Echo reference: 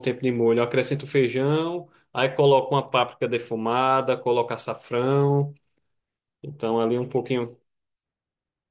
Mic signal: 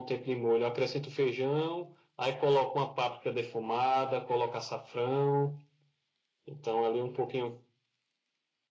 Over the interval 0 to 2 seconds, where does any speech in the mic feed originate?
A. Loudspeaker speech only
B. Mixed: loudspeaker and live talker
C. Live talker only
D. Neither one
A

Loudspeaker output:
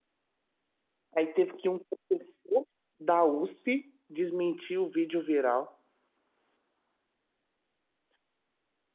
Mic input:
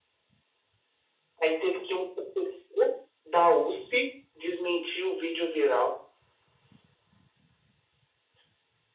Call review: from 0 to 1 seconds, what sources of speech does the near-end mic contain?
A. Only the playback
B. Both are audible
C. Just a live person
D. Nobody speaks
D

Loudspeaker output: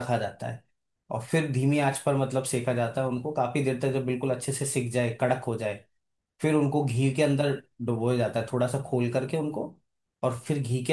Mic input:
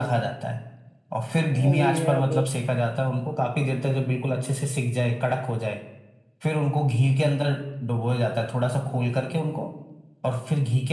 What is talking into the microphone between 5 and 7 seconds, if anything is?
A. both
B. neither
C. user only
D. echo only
D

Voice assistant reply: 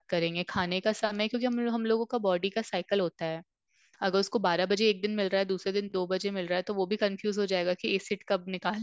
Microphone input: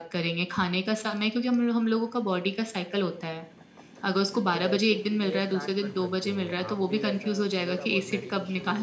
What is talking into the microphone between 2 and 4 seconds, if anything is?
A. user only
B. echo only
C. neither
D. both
B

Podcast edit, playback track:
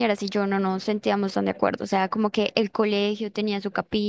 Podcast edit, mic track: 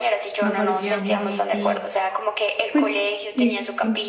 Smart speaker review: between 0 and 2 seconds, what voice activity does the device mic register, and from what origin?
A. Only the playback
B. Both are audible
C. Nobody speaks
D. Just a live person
B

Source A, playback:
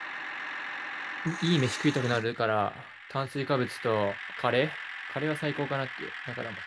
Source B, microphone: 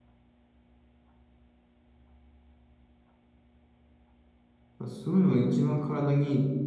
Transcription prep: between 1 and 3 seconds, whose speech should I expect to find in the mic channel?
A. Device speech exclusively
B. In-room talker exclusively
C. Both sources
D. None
D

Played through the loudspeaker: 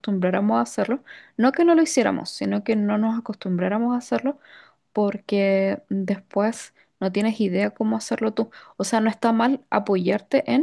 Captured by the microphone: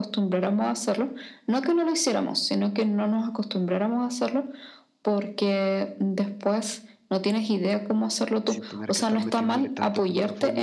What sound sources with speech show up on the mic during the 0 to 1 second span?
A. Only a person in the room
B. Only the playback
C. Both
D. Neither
B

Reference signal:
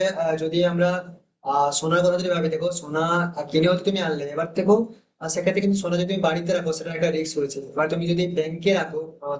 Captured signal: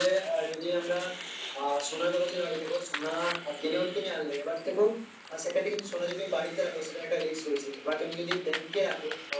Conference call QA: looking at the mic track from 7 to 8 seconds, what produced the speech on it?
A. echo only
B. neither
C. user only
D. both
A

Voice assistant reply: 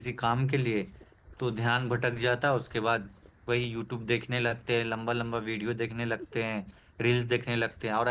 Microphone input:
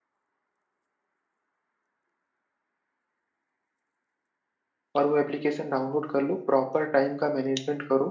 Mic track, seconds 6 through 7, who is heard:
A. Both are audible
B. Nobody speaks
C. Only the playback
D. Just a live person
D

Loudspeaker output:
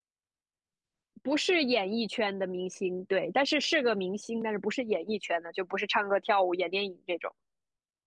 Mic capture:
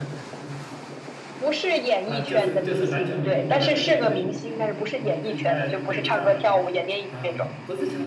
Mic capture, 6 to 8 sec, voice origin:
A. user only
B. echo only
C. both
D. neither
C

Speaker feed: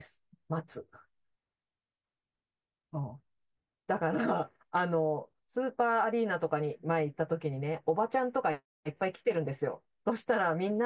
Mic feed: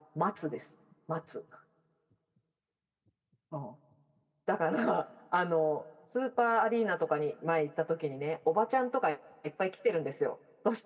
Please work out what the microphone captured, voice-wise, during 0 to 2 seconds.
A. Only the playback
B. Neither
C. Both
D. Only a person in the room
A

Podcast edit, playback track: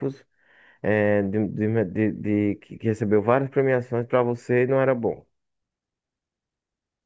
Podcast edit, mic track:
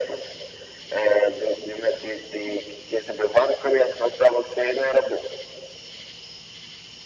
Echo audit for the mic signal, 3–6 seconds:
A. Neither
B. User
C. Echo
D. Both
C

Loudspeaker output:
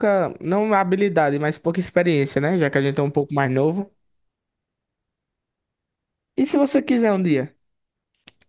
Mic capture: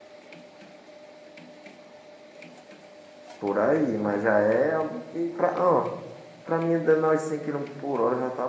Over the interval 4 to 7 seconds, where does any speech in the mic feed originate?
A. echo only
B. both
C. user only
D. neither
C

